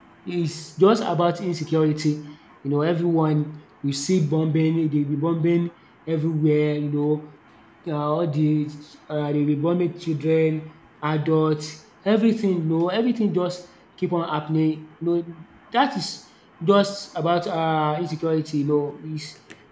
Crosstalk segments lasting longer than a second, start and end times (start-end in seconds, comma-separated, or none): none